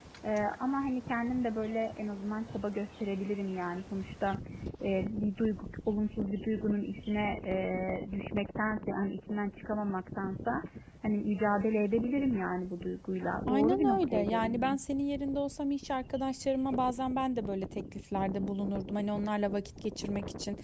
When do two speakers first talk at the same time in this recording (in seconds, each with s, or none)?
13.5 s